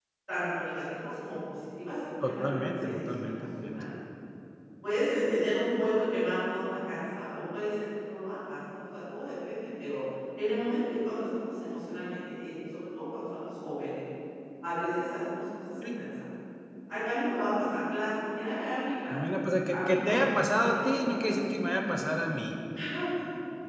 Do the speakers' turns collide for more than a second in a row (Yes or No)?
Yes